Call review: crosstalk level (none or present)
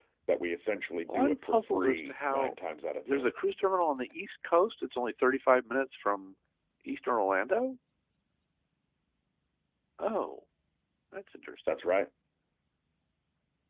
present